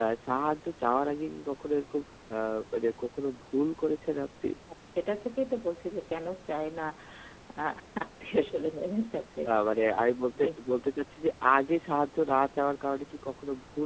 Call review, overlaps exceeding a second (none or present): none